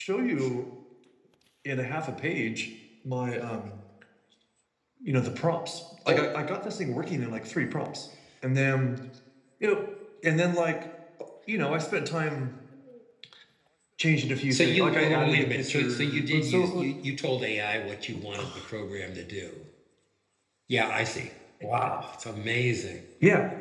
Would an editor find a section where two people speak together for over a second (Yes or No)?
Yes